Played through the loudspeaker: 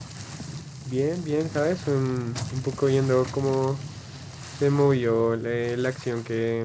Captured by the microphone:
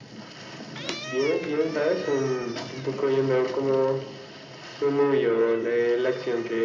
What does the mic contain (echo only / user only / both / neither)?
echo only